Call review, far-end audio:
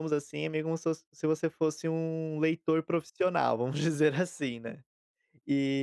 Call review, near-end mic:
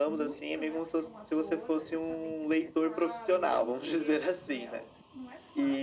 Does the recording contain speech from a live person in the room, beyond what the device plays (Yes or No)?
Yes